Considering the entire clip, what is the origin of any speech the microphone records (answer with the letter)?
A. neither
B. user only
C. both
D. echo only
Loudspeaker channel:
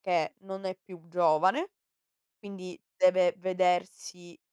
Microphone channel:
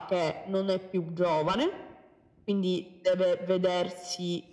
D